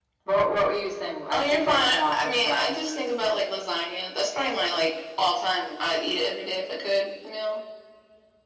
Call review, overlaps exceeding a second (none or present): present